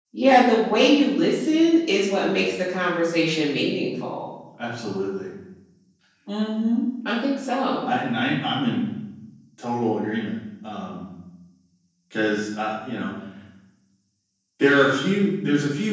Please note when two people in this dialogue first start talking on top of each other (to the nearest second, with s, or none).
none